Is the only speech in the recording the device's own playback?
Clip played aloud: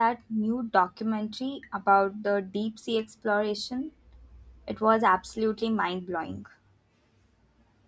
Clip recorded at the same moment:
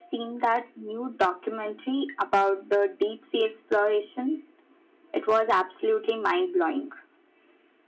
Yes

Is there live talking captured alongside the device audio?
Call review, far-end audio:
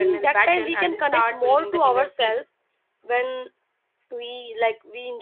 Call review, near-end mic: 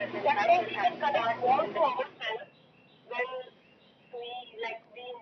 No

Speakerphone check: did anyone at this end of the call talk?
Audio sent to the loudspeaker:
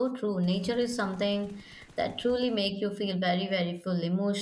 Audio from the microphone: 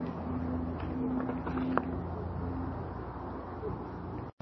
No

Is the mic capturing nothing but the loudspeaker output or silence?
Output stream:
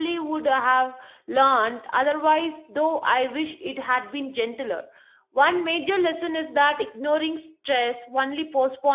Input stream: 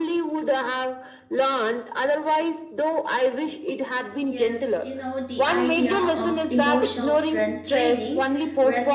No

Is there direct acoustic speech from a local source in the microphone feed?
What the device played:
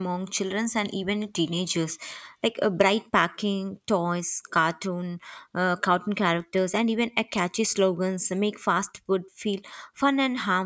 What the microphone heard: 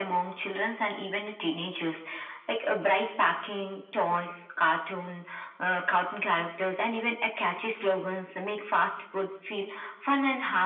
No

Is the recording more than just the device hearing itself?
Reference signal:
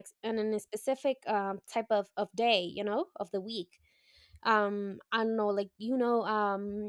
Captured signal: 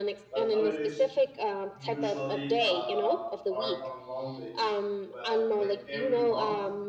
Yes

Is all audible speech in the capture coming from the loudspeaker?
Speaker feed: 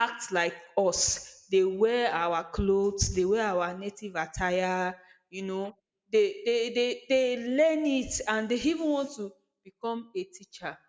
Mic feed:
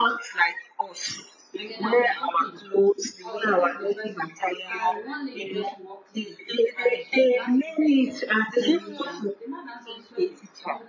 No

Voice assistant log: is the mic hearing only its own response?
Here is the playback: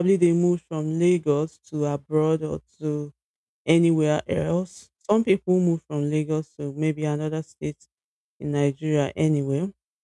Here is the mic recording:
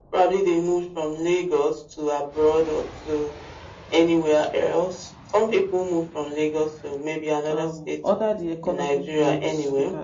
No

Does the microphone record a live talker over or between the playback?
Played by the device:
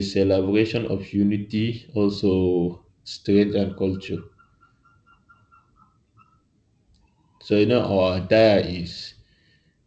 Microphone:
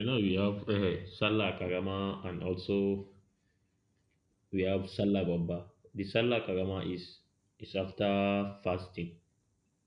Yes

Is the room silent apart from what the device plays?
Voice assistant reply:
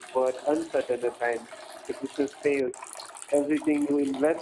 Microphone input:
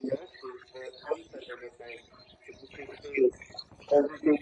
Yes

